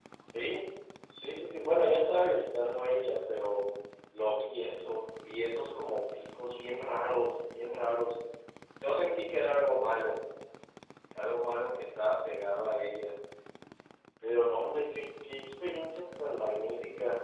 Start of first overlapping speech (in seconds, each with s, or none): none